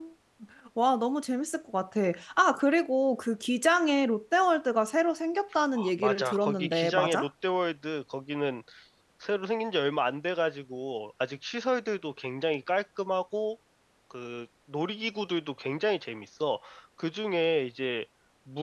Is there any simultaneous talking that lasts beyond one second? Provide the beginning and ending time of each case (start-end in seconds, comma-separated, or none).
6.0-7.3